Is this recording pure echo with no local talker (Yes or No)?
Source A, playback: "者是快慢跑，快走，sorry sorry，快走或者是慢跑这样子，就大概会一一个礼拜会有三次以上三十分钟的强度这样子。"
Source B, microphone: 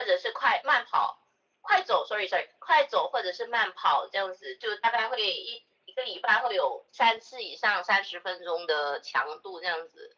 Yes